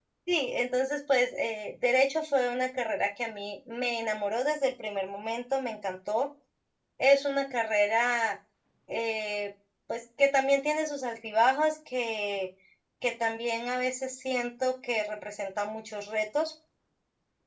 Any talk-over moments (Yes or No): No